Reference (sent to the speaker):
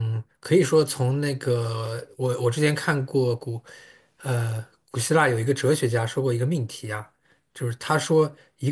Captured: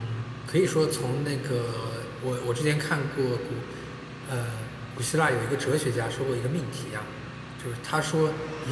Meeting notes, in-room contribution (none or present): none